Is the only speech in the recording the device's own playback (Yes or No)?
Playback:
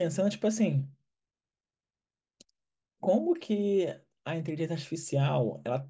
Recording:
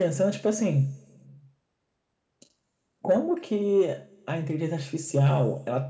Yes